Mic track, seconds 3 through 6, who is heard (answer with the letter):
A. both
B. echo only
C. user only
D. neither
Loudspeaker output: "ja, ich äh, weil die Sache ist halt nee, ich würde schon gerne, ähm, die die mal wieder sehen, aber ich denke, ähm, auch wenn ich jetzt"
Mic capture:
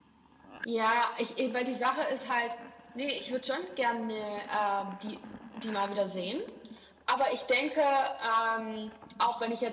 B